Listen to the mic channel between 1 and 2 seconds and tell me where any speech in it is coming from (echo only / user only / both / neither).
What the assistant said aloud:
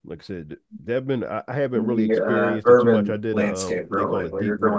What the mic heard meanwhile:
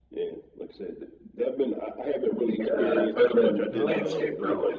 echo only